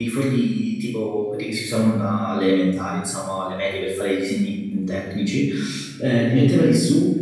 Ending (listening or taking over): listening